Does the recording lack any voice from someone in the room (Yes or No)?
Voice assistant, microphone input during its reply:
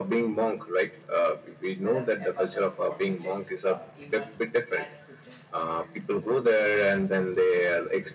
No